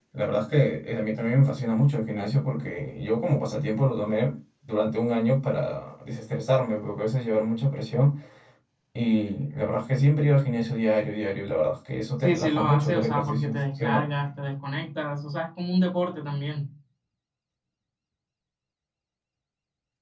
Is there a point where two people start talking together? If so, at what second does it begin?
12.2 s

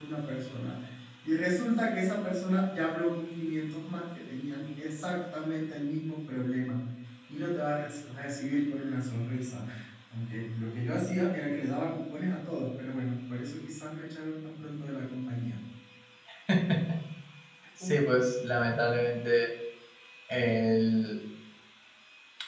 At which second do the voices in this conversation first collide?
none

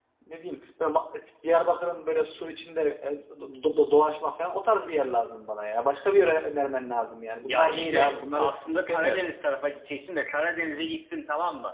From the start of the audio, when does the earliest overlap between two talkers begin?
7.4 s

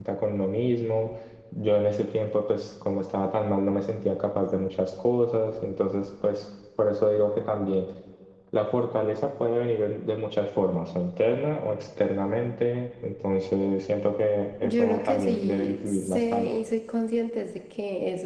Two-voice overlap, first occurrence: 14.6 s

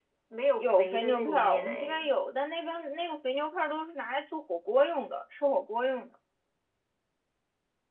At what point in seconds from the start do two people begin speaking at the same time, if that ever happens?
0.6 s

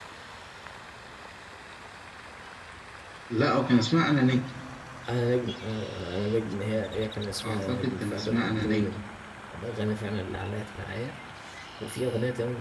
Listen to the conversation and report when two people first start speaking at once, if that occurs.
7.4 s

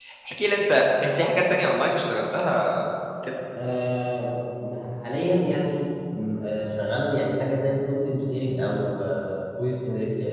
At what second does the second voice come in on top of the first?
none

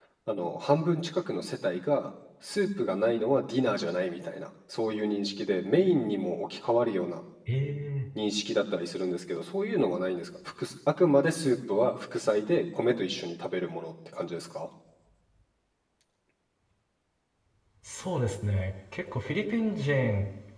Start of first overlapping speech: none

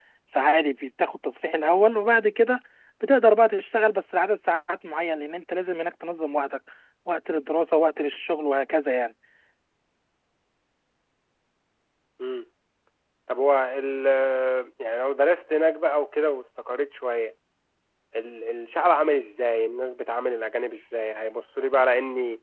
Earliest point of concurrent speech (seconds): none

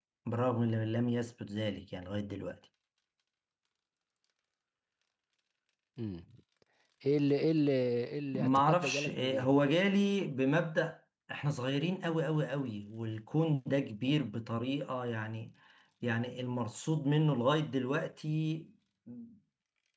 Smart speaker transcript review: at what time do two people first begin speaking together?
8.3 s

